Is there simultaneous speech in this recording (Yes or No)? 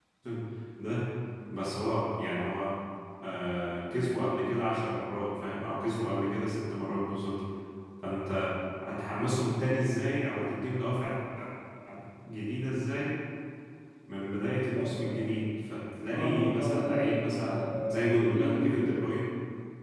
Yes